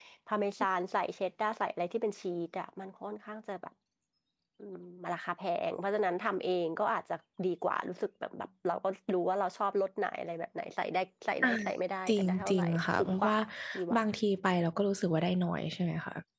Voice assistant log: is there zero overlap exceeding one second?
No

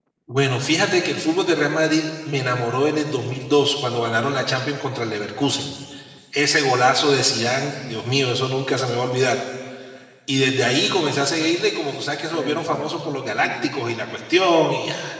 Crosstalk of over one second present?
Yes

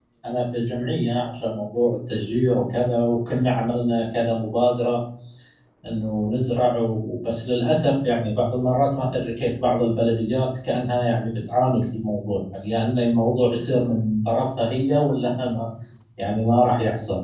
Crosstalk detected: No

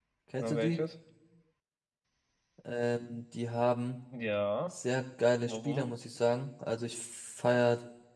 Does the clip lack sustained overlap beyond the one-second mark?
Yes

